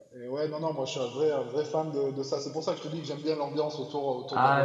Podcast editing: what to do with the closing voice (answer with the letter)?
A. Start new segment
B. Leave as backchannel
A